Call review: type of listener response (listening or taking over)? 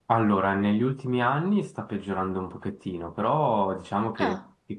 listening